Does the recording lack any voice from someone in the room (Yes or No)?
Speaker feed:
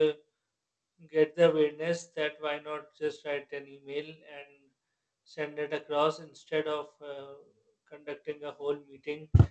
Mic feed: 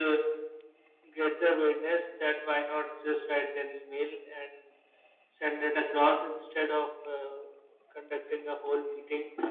Yes